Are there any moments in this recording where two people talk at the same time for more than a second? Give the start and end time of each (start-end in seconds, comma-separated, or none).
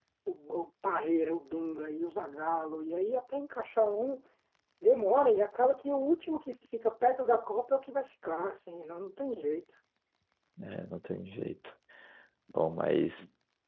none